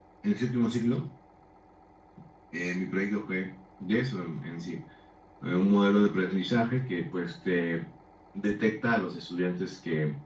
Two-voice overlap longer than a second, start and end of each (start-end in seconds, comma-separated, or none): none